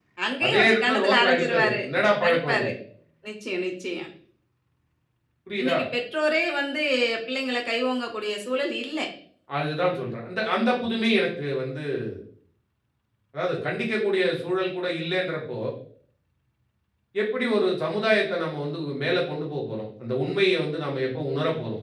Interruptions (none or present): present